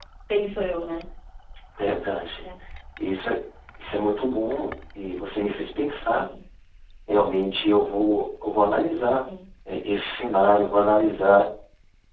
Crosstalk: none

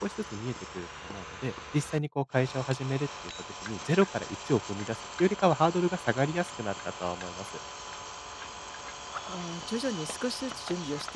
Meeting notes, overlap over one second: none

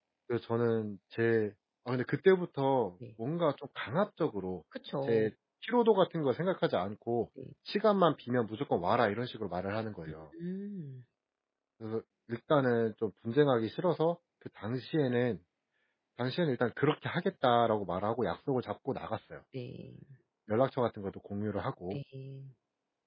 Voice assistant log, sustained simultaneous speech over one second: none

